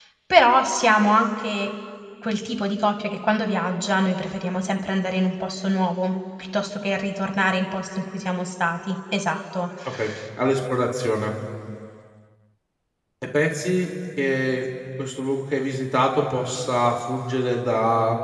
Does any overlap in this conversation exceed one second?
No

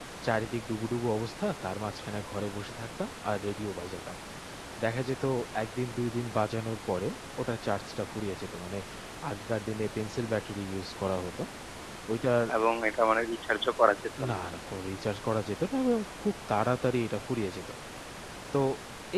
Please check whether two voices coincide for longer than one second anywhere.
No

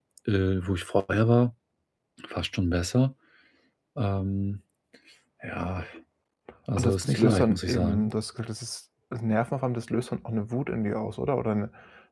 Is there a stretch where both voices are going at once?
Yes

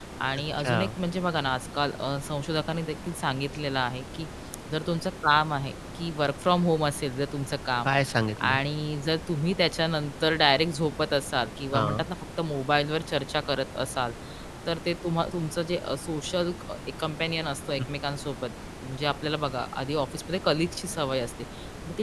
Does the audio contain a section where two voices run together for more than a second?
No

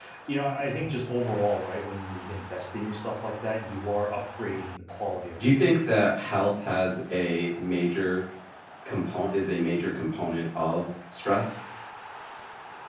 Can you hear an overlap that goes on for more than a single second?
No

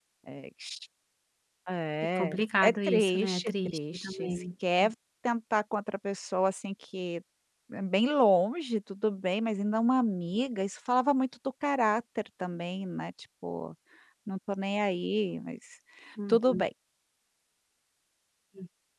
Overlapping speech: Yes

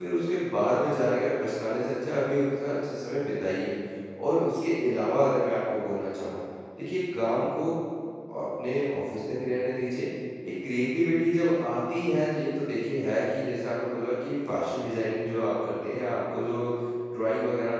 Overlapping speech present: No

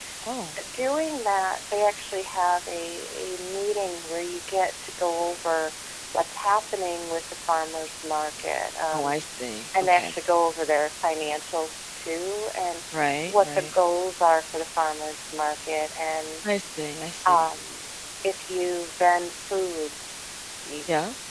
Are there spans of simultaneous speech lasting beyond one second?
No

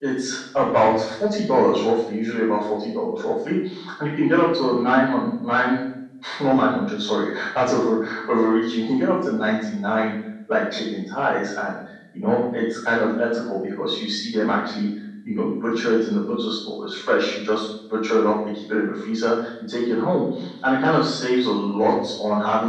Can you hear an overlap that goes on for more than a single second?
No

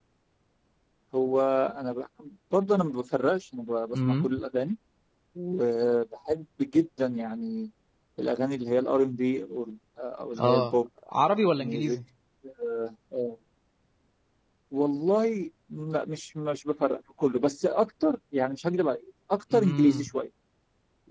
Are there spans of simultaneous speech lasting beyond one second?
No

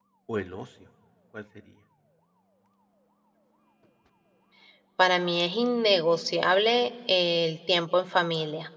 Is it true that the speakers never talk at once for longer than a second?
Yes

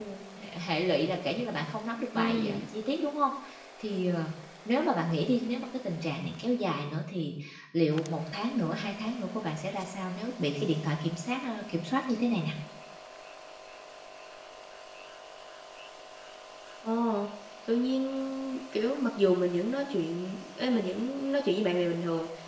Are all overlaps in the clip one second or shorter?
Yes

